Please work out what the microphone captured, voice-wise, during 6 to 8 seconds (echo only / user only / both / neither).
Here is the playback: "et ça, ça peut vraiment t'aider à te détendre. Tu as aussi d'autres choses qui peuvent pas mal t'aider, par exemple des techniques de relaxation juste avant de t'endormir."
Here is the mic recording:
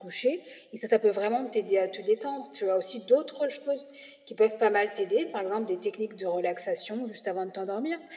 echo only